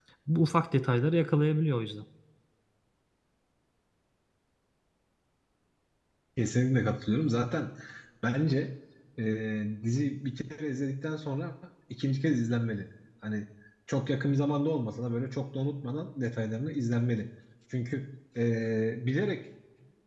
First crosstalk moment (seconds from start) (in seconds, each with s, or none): none